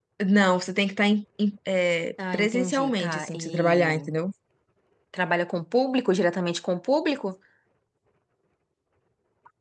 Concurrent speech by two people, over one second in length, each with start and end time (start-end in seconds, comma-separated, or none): 2.3-4.1